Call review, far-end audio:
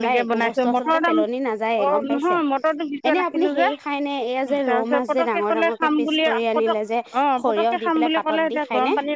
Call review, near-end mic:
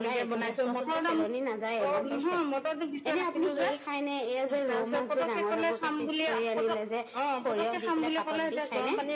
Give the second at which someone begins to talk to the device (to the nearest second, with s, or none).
none